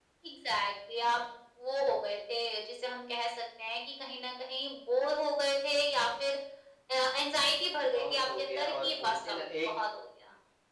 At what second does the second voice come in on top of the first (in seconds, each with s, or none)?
7.9 s